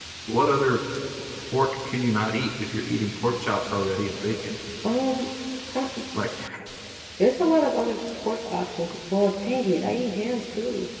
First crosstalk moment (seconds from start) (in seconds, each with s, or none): none